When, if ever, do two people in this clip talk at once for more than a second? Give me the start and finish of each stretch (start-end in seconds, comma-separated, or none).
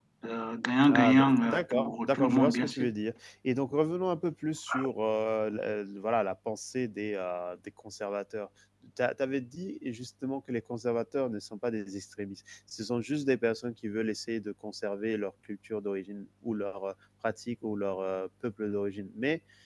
0.9-2.9